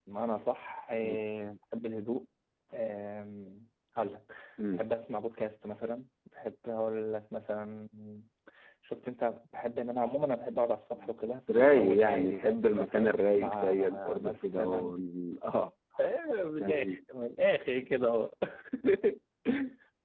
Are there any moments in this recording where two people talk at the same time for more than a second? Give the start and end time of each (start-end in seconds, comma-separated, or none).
11.6-14.9